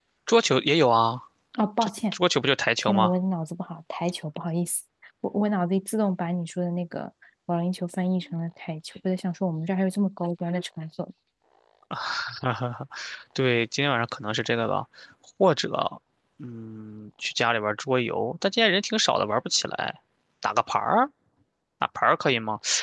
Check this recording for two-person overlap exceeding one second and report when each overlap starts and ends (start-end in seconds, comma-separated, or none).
none